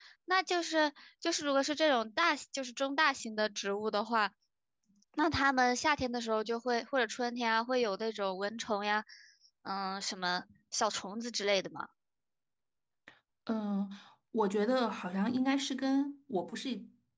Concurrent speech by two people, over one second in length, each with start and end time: none

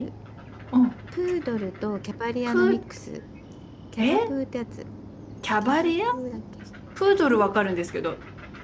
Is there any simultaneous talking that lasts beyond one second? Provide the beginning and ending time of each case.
none

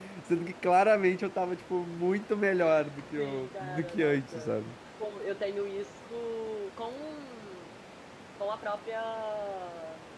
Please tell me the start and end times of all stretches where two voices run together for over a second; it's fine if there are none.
3.2-4.5

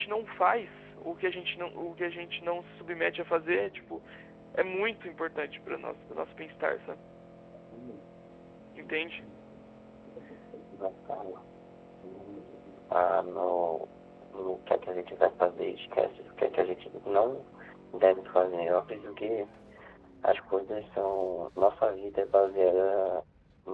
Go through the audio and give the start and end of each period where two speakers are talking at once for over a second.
none

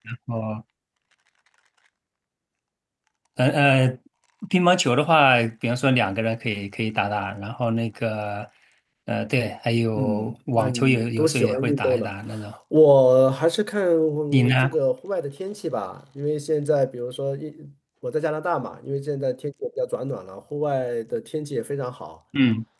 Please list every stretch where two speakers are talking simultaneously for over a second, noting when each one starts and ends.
9.9-12.1

